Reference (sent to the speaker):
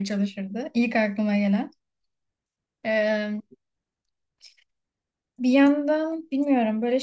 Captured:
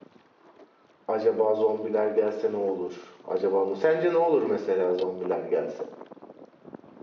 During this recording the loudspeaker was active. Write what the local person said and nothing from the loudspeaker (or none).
Acaba zombiler gelse ne olur? Acaba ne? Sence ne olur mesela zombiler gelse?